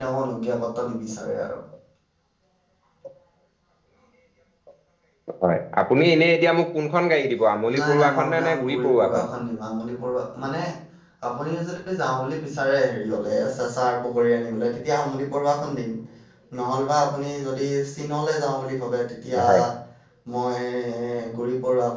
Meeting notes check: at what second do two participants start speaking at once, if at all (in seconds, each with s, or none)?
7.8 s